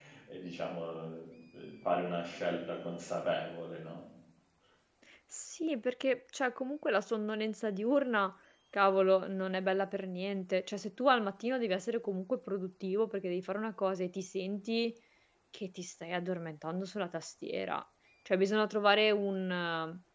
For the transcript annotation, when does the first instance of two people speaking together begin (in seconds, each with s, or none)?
none